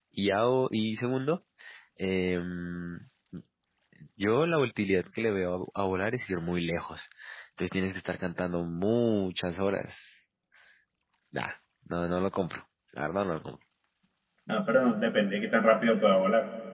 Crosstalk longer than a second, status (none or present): none